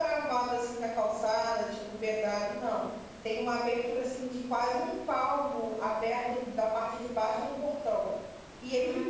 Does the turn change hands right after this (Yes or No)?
No